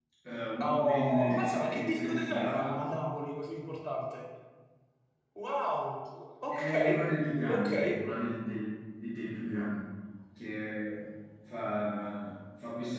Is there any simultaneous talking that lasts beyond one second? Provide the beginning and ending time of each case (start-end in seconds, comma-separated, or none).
0.6-2.9